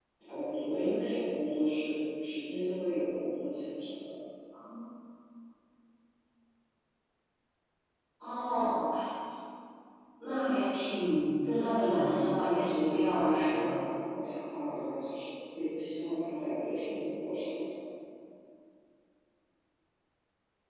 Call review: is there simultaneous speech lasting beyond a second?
Yes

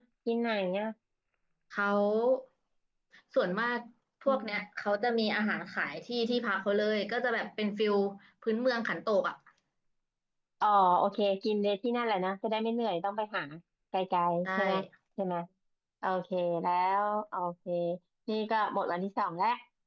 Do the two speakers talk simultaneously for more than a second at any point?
No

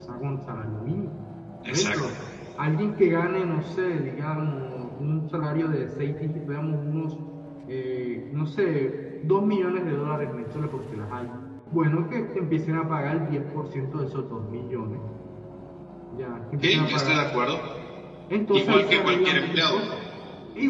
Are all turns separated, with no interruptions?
No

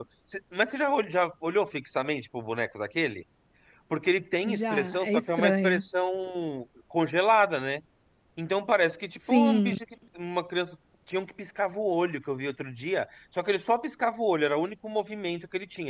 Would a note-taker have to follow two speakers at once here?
Yes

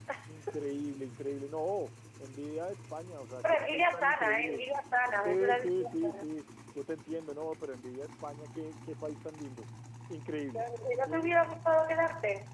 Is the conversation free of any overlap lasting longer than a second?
No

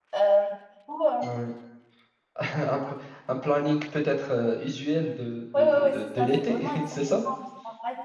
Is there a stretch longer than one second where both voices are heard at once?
Yes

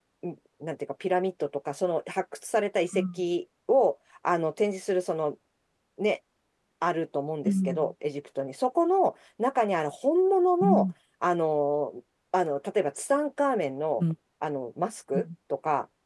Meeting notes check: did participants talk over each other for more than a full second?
No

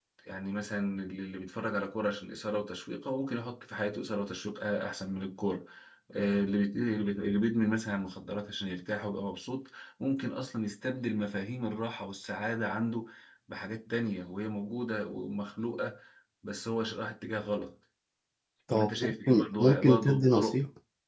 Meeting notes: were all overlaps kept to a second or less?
No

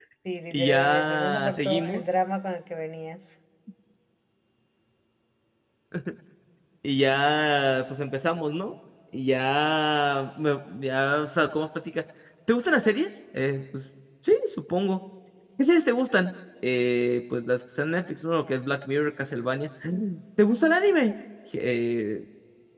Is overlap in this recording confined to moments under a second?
No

